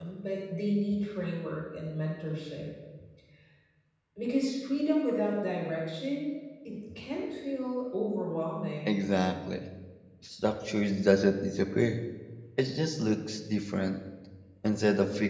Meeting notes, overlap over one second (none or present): none